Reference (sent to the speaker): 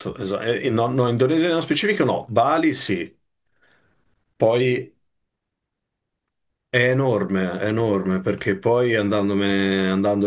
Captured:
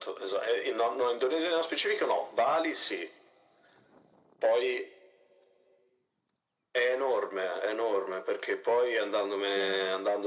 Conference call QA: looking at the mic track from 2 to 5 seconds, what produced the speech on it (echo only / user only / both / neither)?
echo only